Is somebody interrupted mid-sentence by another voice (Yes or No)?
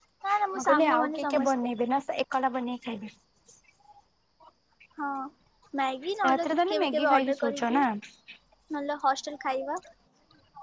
Yes